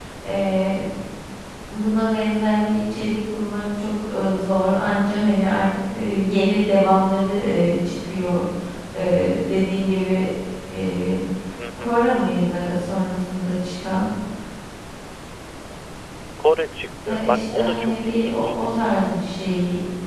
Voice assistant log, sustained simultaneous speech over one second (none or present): present